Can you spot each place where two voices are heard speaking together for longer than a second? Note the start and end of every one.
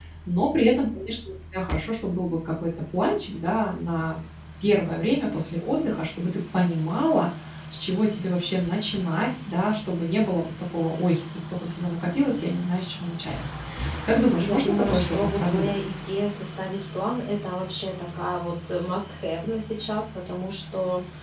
14.4-15.8

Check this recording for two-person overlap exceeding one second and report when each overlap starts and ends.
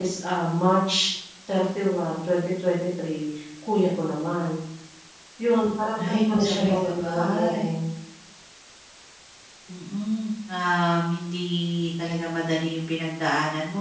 6.0-7.6

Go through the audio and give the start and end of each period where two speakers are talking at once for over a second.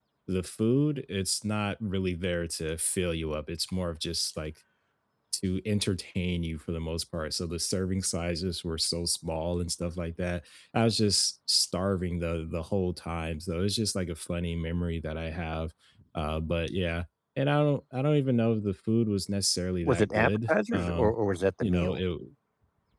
19.8-21.1

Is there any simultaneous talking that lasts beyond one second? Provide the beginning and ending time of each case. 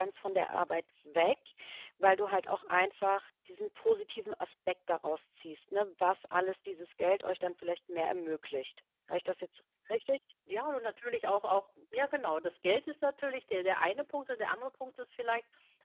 none

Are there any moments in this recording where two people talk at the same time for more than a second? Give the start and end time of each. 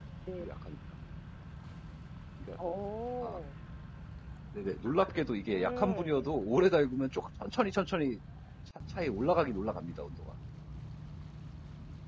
5.0-6.3

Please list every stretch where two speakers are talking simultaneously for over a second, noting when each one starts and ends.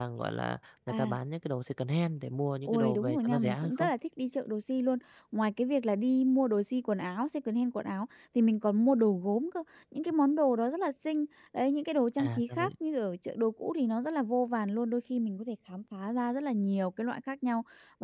2.6-3.9

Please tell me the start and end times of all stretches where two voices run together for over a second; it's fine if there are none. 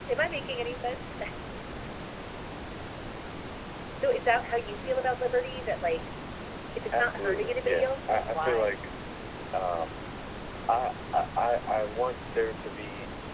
6.9-8.8

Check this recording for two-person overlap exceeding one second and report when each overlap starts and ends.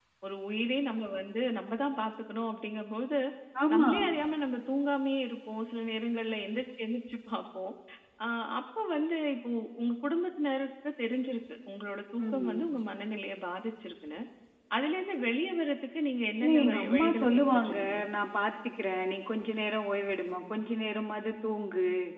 16.4-17.8

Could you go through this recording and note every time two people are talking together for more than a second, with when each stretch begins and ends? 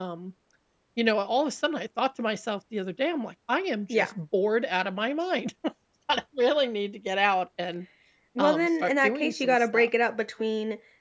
8.4-9.9

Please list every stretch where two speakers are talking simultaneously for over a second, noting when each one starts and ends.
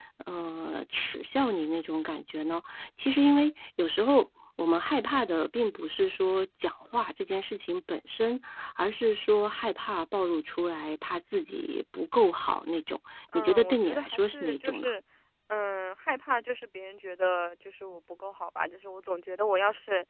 13.3-14.9

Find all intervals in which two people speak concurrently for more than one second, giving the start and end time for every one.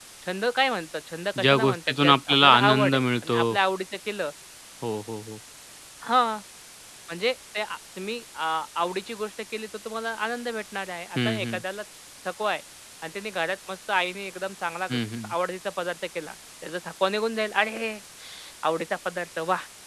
1.4-3.4

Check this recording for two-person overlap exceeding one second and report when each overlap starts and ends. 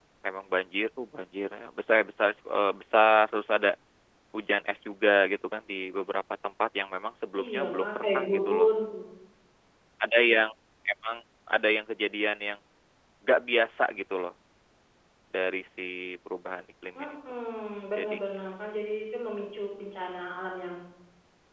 7.4-8.7

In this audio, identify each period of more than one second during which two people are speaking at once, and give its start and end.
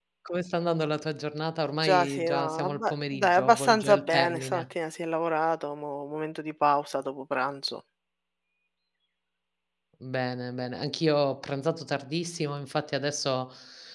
1.8-4.6

